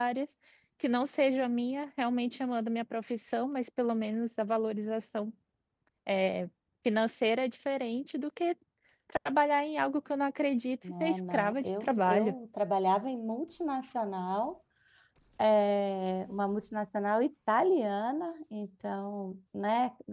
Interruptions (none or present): present